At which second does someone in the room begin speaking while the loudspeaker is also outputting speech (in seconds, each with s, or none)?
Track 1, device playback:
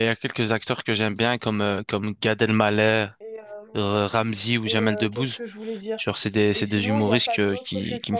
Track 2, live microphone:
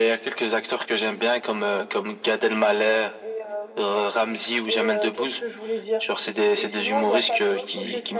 none